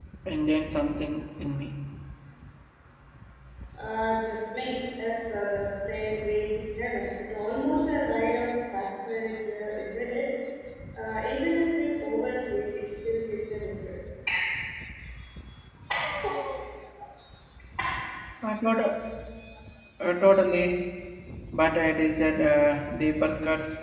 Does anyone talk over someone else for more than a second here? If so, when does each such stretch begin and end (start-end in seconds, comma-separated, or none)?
none